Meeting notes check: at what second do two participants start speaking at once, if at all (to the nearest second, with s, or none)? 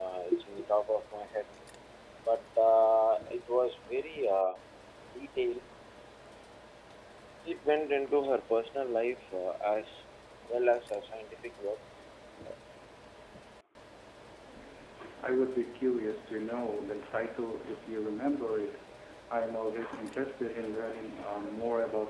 none